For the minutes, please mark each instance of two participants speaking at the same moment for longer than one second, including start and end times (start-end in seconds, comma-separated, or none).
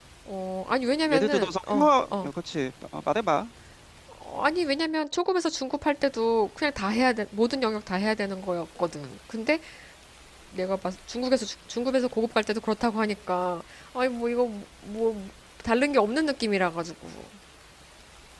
1.1-2.3